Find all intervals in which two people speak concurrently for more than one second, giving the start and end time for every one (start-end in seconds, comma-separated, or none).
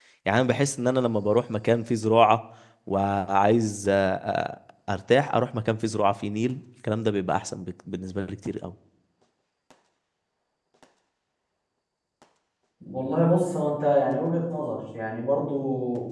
none